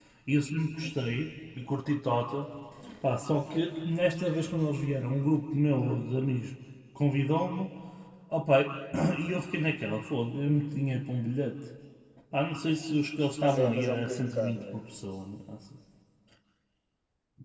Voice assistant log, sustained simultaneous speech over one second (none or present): present